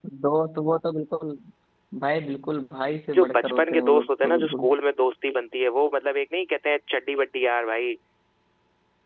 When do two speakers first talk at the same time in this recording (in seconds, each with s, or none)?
3.1 s